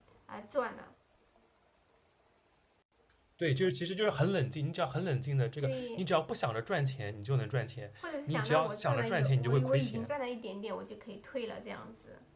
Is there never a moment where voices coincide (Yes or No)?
No